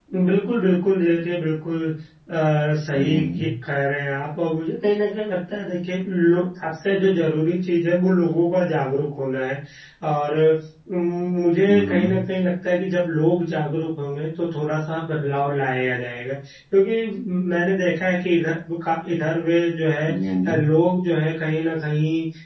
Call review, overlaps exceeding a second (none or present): none